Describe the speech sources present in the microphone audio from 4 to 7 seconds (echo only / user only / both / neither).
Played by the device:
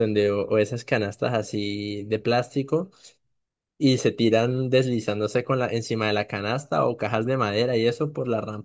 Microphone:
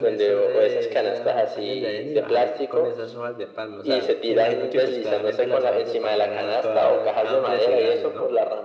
both